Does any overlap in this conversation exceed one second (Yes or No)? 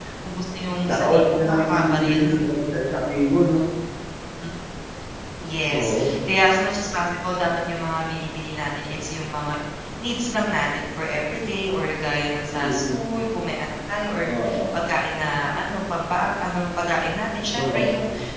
Yes